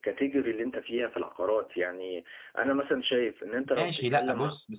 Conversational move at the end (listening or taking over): taking over